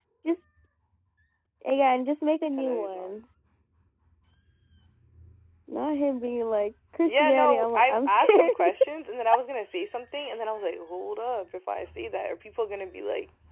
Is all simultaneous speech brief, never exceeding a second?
No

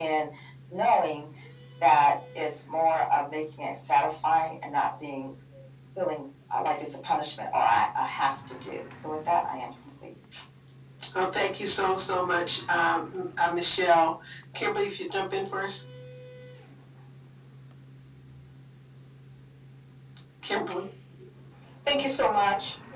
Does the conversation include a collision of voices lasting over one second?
No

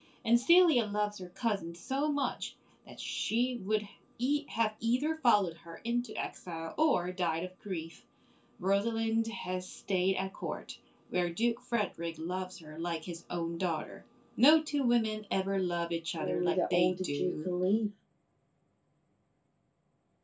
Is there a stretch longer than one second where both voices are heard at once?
Yes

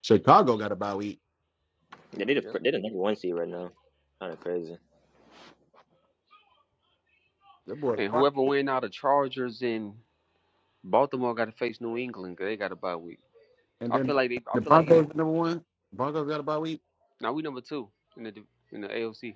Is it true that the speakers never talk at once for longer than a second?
Yes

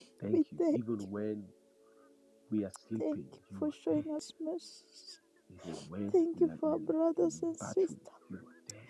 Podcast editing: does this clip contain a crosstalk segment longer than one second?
Yes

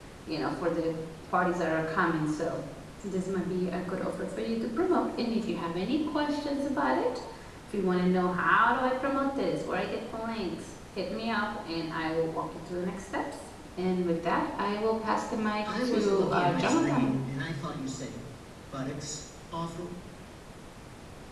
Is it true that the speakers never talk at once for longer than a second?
No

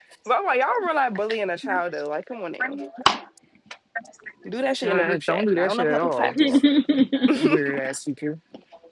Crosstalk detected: Yes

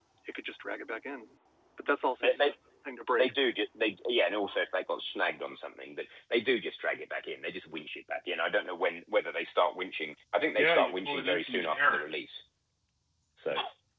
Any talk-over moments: Yes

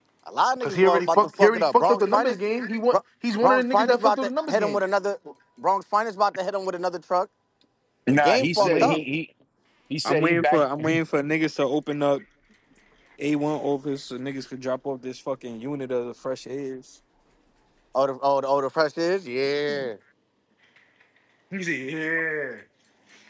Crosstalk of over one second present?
Yes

